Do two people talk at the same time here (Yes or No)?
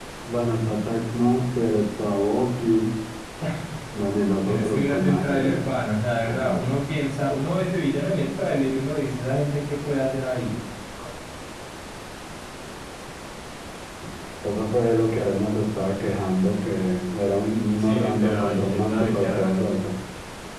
Yes